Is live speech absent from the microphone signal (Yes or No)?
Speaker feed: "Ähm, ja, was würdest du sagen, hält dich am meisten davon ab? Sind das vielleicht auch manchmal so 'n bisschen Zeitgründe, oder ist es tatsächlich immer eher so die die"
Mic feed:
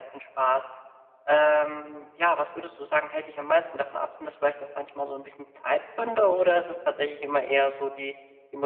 Yes